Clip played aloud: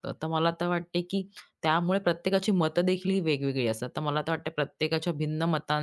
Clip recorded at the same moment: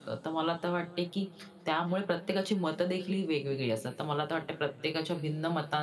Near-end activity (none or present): none